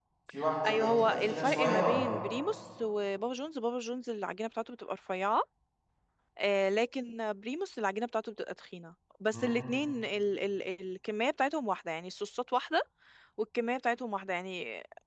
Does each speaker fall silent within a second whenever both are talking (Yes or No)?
No